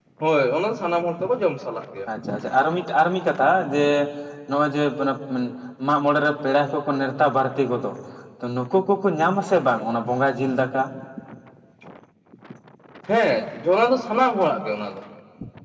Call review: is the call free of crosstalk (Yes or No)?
Yes